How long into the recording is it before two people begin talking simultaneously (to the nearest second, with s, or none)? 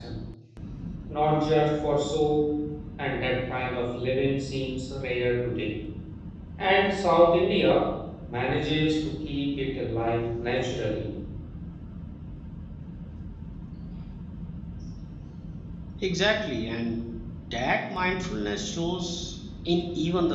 none